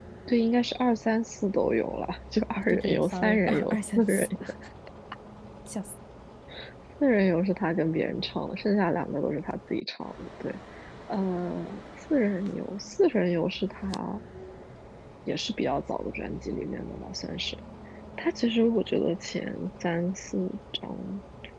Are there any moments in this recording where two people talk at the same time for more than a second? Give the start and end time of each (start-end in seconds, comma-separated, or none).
2.6-4.3